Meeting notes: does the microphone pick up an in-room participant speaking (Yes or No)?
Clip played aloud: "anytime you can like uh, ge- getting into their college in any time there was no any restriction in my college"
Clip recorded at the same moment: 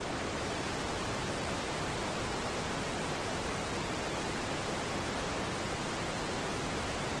No